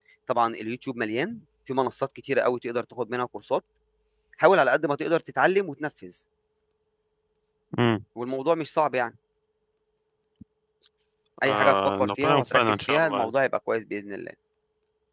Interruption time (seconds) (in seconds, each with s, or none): 11.5 s